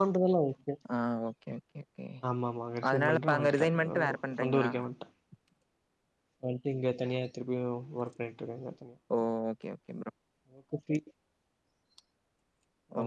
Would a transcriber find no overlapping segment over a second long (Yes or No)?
No